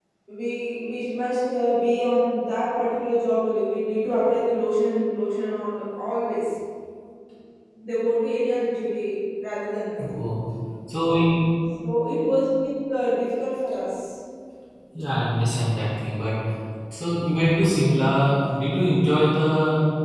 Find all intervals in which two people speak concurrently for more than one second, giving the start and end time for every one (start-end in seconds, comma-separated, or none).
none